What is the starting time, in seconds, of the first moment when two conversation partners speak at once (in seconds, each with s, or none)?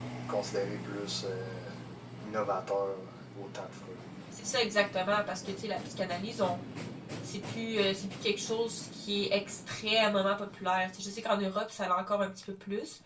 none